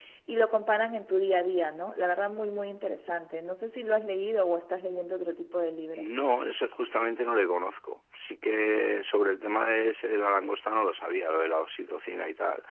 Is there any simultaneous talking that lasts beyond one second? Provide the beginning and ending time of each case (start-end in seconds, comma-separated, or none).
none